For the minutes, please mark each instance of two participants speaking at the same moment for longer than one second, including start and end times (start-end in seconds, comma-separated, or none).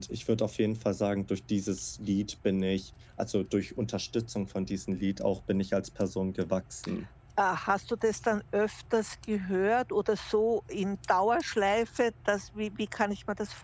none